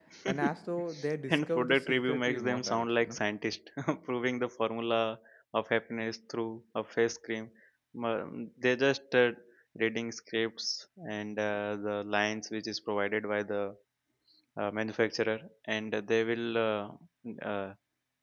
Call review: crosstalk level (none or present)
present